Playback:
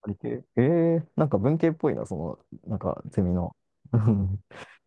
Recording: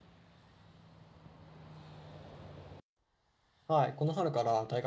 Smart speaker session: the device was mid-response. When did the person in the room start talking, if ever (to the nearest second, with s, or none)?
4 s